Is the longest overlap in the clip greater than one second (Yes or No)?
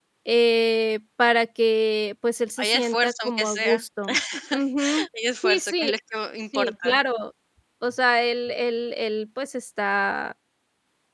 Yes